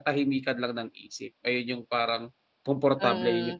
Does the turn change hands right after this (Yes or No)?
Yes